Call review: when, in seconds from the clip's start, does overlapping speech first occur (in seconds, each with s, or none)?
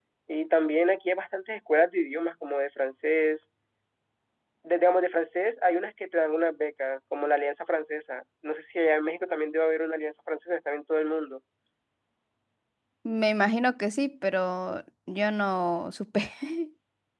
none